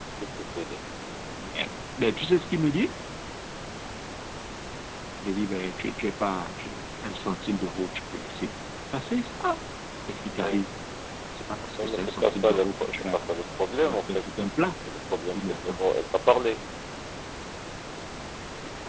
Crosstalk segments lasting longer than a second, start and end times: 11.8-13.3

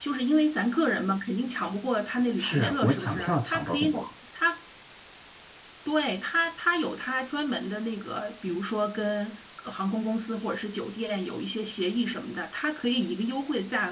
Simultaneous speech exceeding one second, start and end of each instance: 2.4-4.1

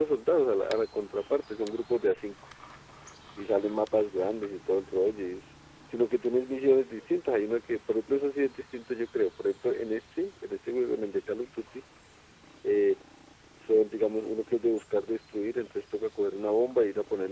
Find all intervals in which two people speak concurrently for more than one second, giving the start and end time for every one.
none

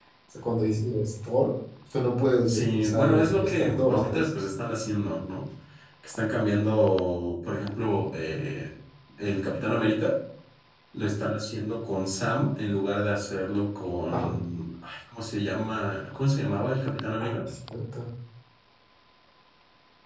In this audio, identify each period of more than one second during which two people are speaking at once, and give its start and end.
2.5-4.3

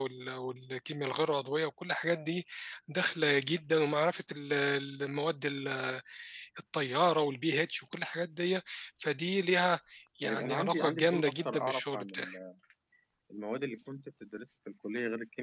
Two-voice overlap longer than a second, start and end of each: 10.2-12.1

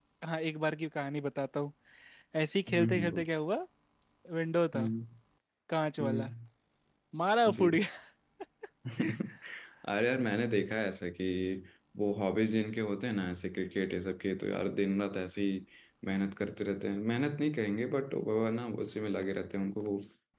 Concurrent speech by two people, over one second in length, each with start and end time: none

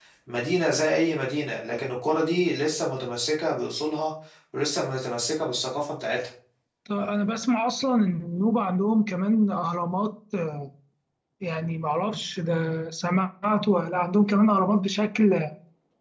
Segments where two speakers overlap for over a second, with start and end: none

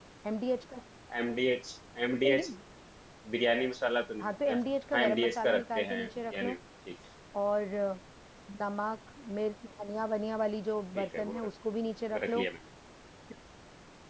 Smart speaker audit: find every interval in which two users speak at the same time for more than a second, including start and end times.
4.2-6.6

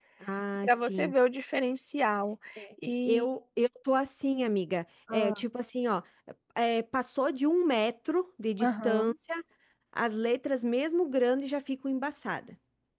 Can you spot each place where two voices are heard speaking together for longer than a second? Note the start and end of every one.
none

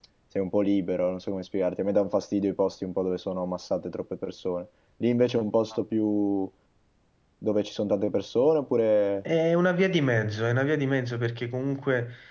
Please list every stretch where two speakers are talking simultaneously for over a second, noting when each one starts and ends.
none

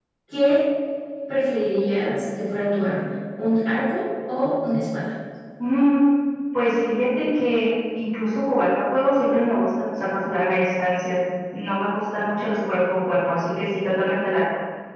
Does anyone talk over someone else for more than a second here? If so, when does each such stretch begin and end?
none

